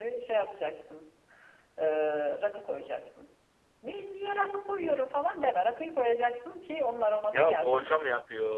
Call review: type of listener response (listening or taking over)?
taking over